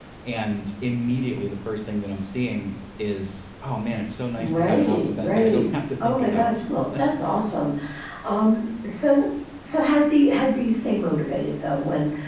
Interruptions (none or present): present